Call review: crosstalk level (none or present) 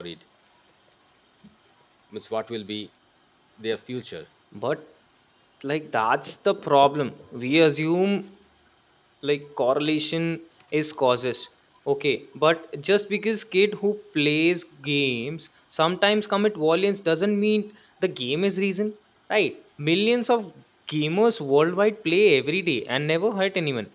none